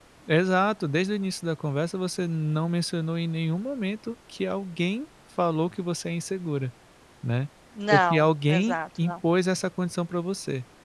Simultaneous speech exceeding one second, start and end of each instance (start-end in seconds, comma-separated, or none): 7.9-9.1